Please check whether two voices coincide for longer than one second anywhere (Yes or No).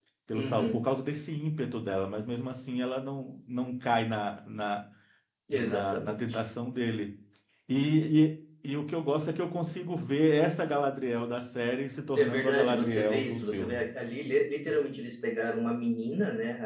Yes